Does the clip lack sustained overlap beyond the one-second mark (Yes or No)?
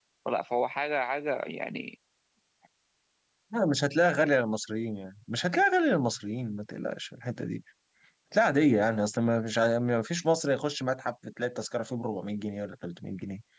Yes